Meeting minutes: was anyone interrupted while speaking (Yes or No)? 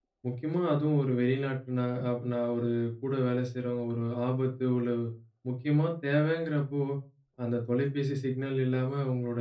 No